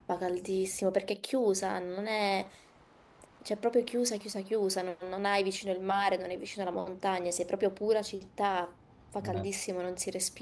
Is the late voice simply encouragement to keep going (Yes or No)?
Yes